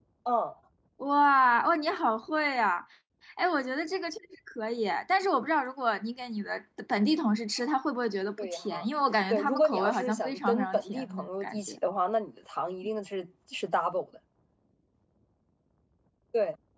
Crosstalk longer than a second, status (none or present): present